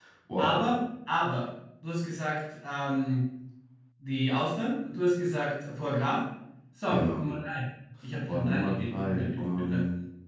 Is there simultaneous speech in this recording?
Yes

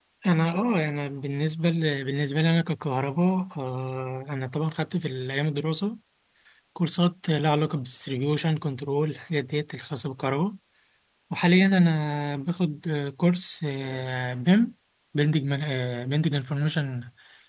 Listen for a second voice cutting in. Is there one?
No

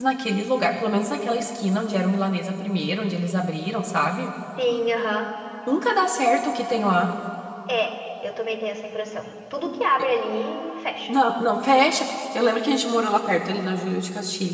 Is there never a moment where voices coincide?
Yes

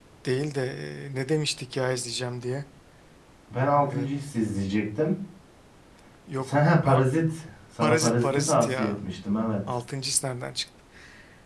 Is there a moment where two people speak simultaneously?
Yes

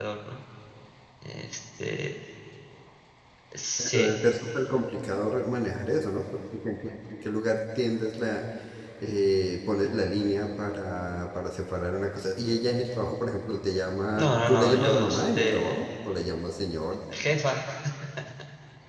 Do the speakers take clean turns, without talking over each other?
No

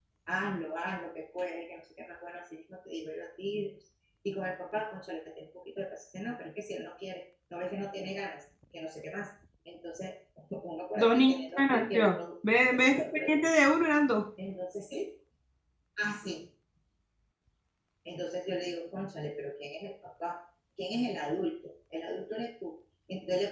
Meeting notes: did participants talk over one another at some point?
Yes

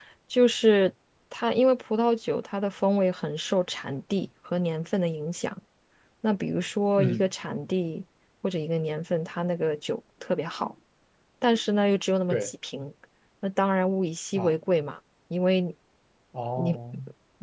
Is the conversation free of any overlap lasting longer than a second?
Yes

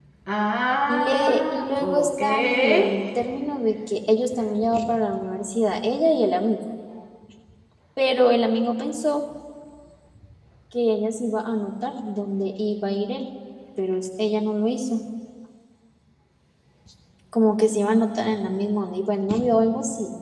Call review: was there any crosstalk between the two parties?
Yes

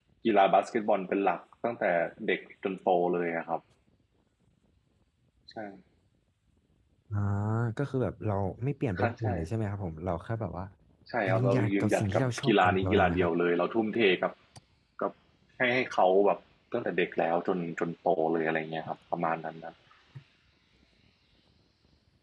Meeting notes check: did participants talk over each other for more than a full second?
Yes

